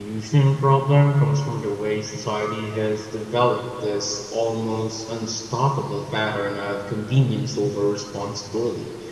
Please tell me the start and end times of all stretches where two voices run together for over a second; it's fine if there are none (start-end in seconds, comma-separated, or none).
none